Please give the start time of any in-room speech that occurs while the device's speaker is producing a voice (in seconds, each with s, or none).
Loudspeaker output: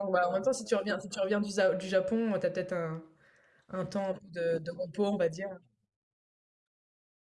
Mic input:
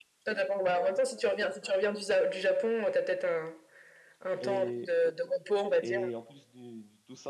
4.4 s